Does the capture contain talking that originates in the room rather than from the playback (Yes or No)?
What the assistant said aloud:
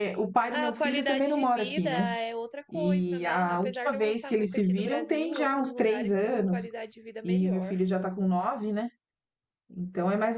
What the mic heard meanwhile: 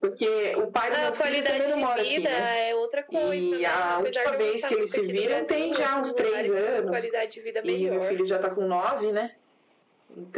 No